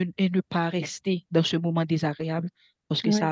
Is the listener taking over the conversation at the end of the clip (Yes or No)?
No